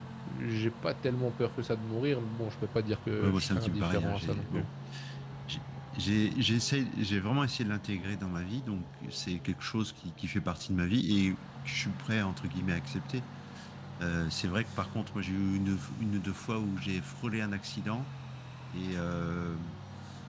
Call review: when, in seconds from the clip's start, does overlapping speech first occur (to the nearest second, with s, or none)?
3 s